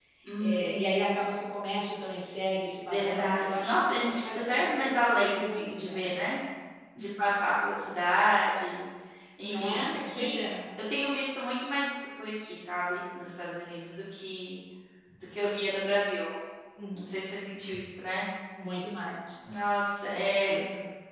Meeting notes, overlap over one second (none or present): present